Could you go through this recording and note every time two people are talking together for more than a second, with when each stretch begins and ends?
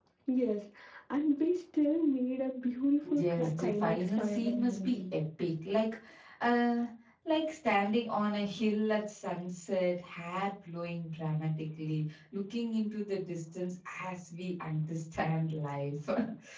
3.1-5.0

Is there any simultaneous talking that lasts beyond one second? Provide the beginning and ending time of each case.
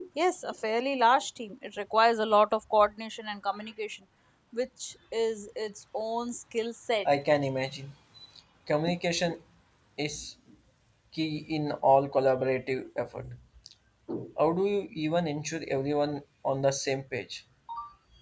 none

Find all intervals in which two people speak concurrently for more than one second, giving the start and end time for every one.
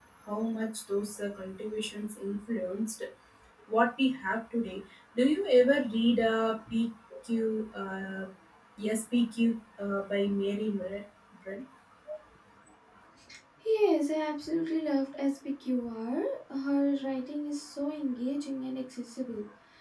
none

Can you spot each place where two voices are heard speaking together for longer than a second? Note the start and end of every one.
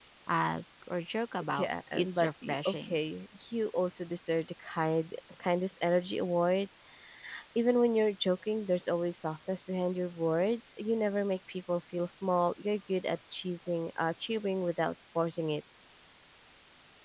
1.5-3.0

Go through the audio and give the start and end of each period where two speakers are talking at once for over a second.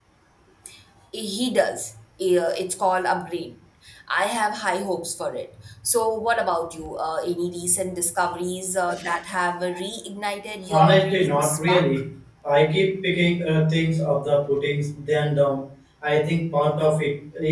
10.7-11.9

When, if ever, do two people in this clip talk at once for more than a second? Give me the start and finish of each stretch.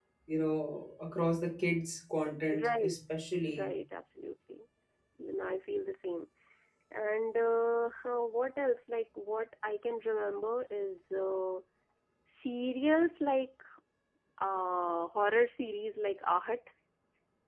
none

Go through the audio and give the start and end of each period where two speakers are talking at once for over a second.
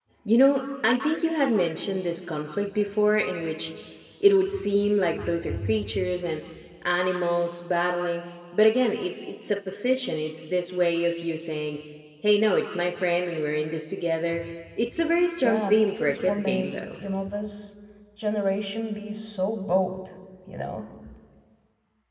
15.4-16.7

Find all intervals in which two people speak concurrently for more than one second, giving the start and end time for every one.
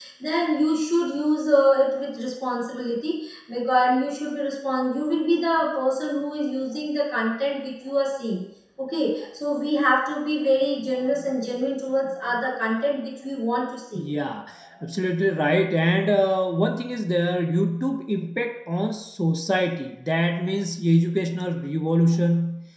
none

